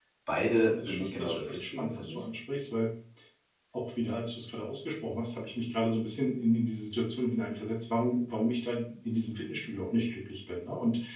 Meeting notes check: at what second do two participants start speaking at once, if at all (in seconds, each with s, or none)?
0.6 s